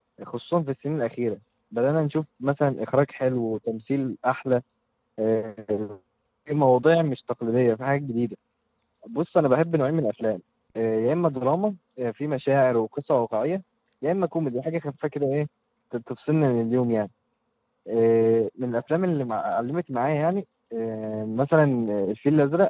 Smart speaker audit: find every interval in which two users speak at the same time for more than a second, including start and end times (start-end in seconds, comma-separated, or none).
none